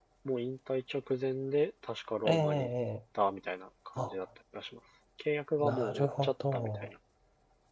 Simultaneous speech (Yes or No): Yes